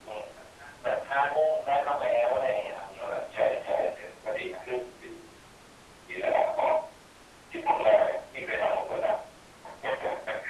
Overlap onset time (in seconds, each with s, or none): 2.4 s